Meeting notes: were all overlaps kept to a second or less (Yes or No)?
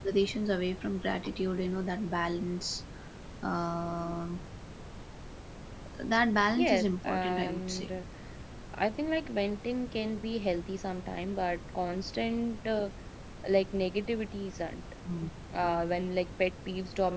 No